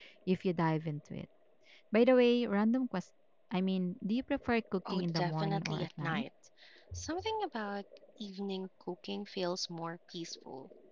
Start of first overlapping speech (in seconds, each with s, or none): 4.9 s